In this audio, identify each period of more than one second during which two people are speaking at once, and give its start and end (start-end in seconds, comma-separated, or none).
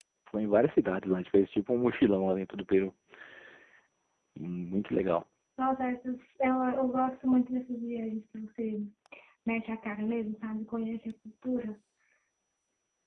none